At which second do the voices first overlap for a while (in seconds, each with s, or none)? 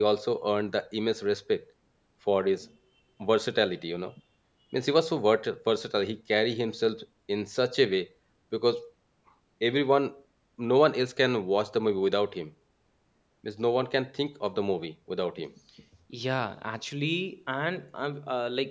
none